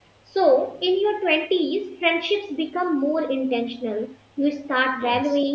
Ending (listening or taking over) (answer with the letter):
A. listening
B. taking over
A